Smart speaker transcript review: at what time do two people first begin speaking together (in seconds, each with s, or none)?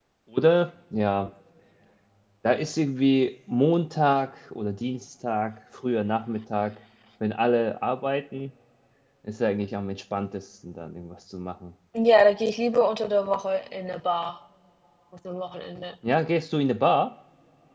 none